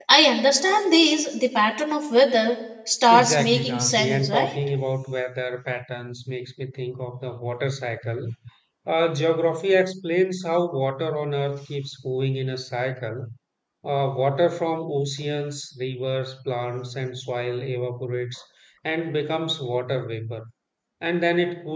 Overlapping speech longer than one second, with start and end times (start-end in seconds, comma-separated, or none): 3.1-4.6